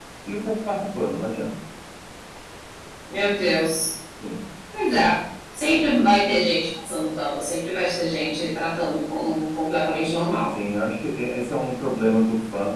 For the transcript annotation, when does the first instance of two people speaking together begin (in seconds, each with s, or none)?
none